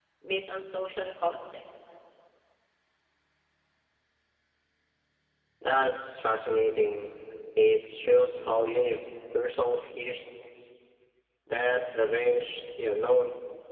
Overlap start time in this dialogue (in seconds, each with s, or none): none